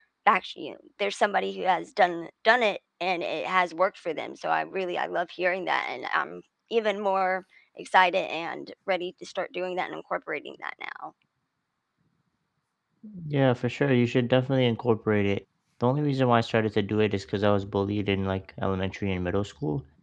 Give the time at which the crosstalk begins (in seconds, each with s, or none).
none